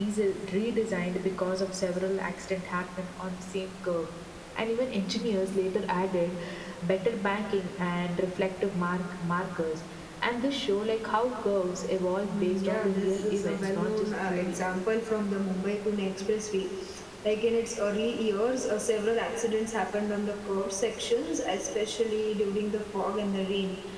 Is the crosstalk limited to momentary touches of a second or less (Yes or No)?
No